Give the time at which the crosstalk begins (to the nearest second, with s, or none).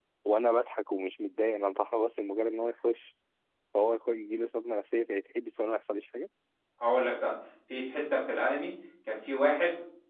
none